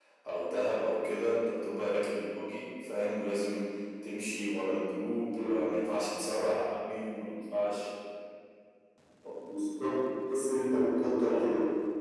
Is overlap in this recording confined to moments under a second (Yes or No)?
Yes